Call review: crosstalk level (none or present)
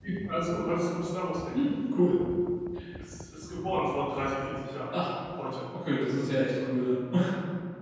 none